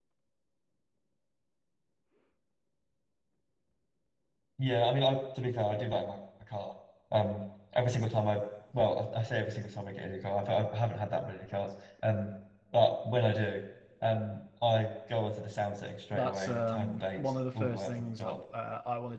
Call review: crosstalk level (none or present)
present